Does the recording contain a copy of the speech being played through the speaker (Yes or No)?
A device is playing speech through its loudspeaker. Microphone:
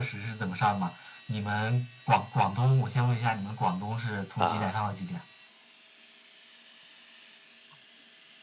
Yes